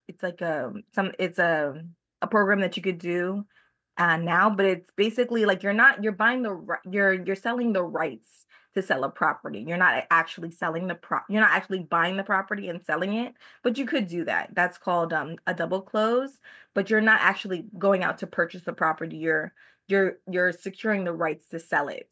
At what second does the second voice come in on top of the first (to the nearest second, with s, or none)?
none